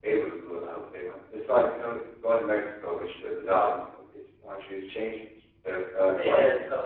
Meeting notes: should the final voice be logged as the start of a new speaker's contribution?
Yes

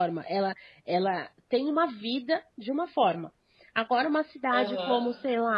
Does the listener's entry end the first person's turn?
No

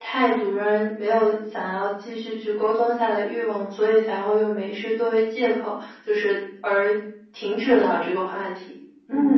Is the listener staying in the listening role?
No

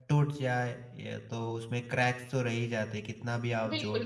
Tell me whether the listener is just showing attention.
No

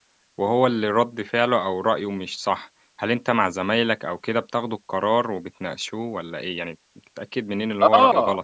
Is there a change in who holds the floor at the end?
Yes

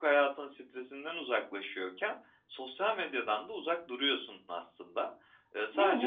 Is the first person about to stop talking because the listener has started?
No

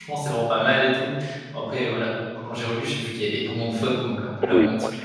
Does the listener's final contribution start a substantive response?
Yes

